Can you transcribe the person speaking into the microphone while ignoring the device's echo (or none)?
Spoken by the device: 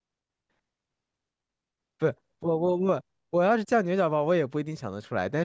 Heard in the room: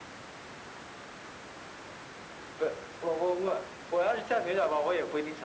none